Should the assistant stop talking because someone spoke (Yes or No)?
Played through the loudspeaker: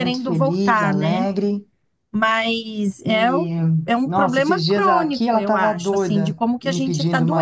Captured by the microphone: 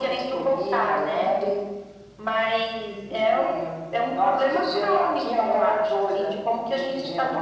No